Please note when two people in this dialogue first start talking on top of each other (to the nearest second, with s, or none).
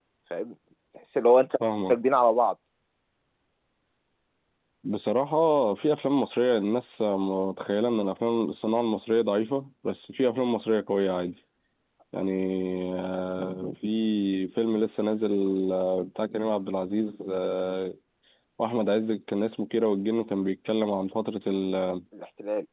none